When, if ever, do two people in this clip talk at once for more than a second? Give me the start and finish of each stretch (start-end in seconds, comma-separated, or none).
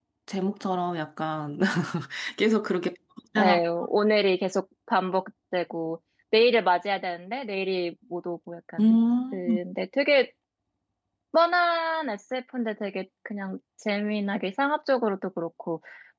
none